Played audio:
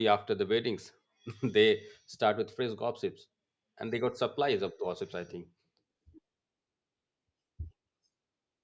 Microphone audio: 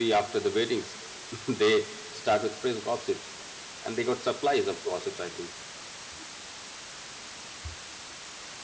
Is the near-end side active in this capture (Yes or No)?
No